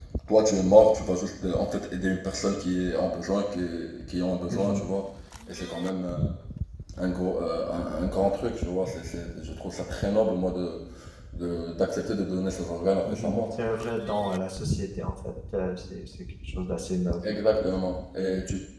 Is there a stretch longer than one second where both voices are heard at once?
No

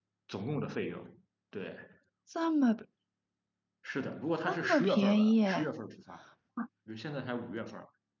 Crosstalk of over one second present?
Yes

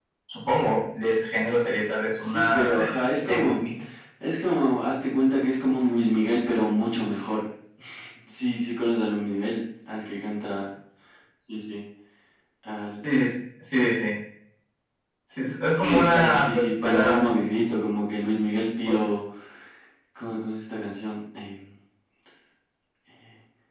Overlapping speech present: Yes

